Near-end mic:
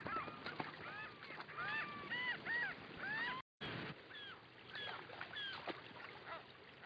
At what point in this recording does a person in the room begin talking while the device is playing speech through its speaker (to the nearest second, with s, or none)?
none